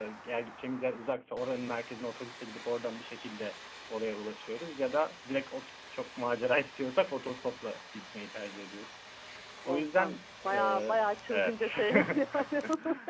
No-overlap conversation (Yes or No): No